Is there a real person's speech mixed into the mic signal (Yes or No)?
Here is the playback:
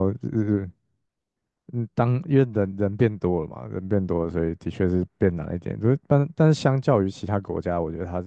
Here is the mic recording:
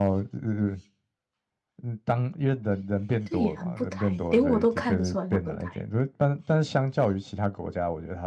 Yes